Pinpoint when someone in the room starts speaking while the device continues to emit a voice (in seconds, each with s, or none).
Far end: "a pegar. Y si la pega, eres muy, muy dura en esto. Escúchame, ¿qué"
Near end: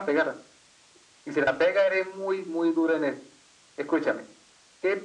none